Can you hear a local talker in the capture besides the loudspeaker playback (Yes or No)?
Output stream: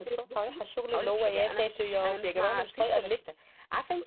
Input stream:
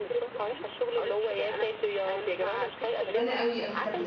Yes